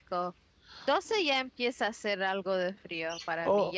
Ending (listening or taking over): taking over